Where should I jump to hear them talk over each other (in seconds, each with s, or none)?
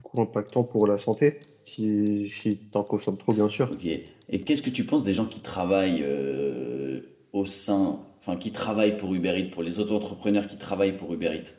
none